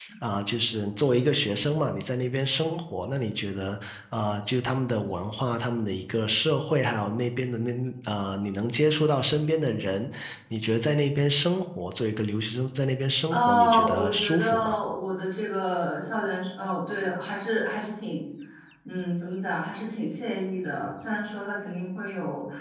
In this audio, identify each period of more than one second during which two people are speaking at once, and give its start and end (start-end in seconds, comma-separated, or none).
13.3-14.8